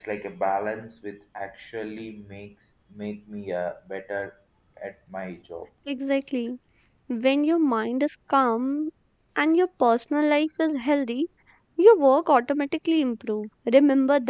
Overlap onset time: none

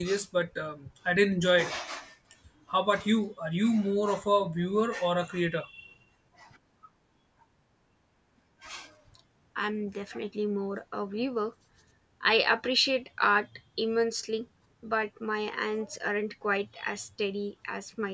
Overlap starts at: none

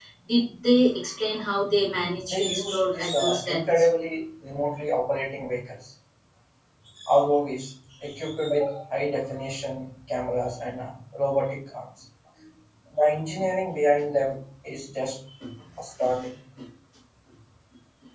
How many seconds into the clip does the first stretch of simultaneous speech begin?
2.3 s

